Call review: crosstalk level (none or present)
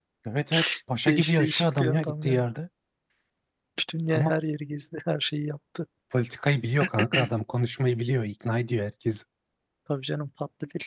present